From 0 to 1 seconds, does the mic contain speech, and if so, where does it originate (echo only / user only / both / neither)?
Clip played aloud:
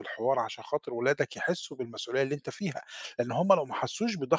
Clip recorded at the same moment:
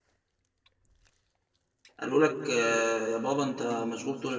neither